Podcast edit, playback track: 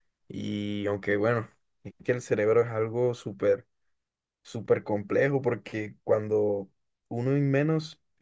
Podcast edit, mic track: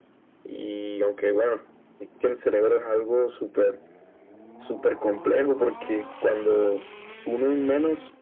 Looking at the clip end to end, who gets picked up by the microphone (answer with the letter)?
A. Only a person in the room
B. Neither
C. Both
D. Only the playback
D